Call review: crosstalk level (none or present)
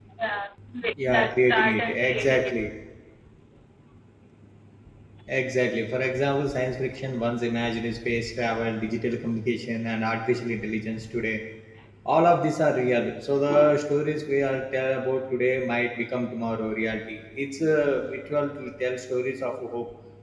present